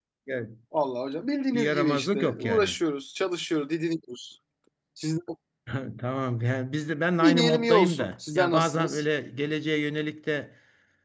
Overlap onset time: 1.5 s

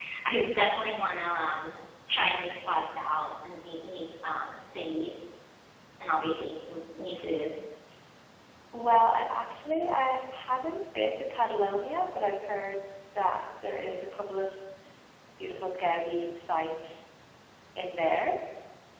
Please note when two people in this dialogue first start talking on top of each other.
none

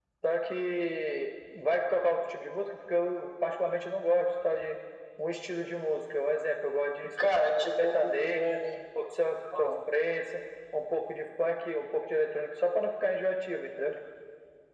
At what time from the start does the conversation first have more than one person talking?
7.2 s

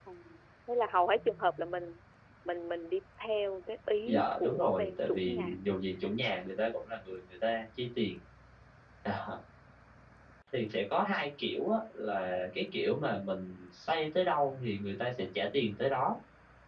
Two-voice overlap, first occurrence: 4.1 s

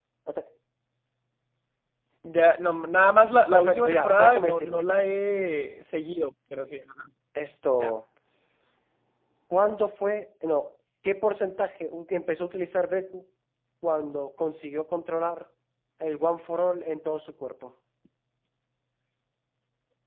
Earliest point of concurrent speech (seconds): 3.5 s

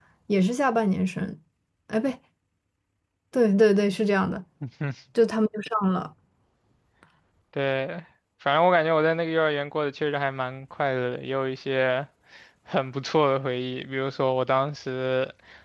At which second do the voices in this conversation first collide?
none

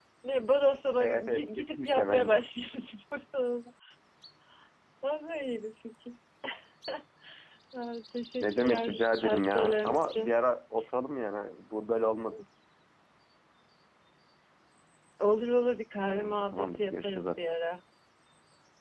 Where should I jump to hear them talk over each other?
1.0 s

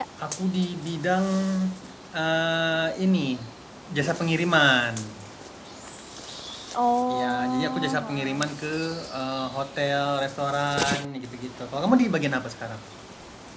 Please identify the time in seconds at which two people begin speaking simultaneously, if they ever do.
7.2 s

